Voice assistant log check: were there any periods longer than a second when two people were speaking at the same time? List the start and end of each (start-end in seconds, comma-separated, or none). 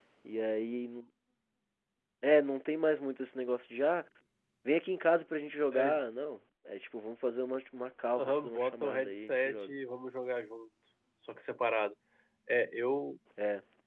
8.2-9.7